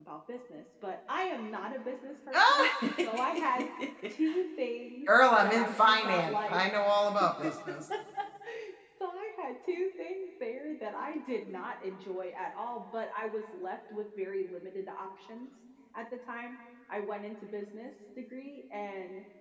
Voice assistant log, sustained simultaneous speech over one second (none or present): present